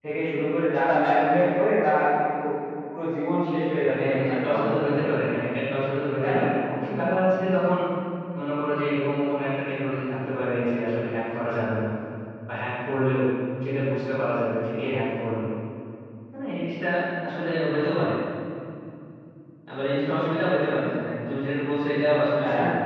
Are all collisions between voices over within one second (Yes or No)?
No